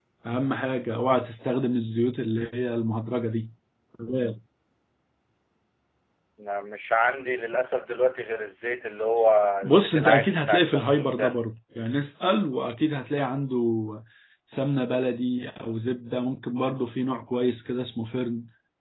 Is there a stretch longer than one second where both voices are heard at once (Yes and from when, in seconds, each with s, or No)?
Yes, from 9.6 s